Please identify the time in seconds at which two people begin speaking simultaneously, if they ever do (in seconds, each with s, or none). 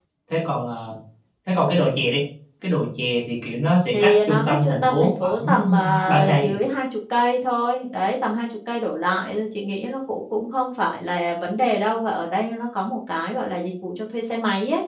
3.9 s